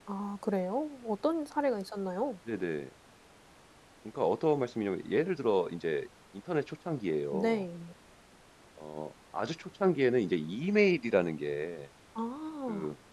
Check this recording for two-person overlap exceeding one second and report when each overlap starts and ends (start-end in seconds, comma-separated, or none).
none